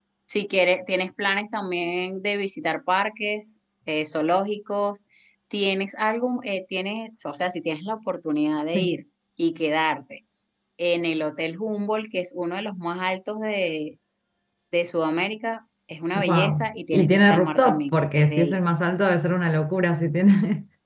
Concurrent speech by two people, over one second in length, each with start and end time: 16.1-18.6

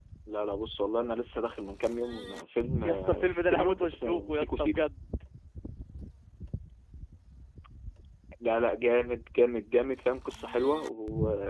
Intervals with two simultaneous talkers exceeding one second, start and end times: 2.8-4.8

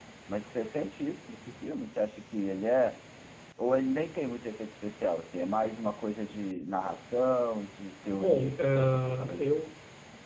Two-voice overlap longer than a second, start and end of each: 8.1-9.5

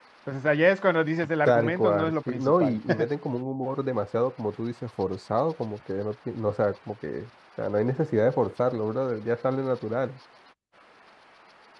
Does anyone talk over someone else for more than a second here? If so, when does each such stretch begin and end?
1.4-2.8

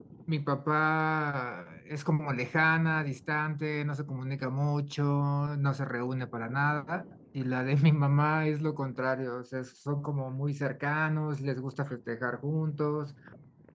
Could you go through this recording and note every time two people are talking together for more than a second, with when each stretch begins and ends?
none

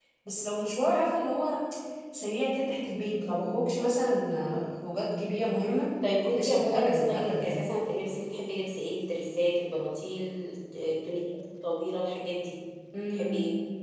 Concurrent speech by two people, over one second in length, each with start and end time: 6.3-7.6

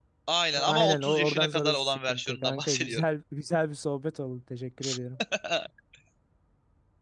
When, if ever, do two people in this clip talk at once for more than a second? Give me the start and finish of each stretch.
0.7-3.0

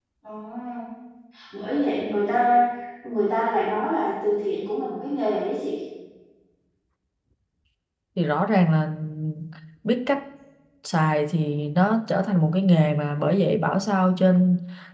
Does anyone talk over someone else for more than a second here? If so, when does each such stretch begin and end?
none

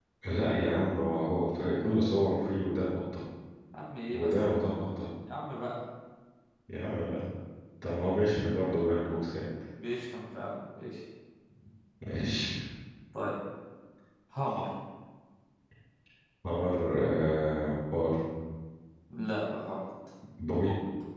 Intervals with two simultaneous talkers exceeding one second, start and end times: none

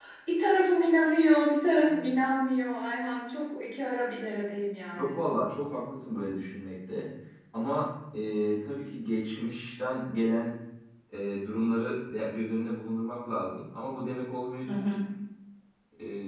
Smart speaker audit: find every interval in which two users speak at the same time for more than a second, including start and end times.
none

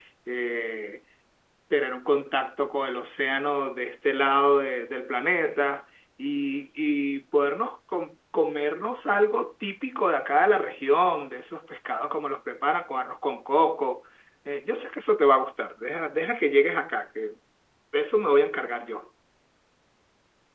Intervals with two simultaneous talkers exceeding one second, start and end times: none

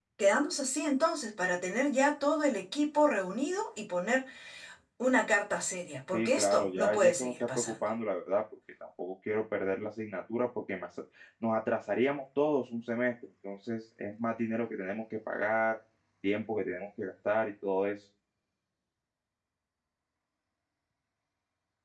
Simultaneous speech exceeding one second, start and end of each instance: 6.1-7.7

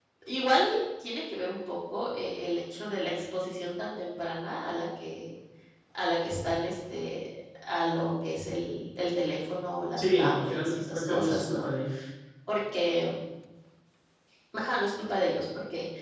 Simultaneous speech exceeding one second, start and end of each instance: 10.0-11.6

